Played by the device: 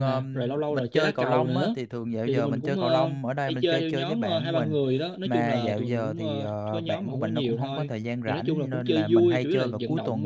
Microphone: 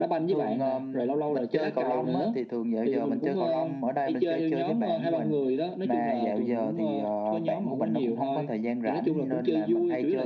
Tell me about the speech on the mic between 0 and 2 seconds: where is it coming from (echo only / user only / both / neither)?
echo only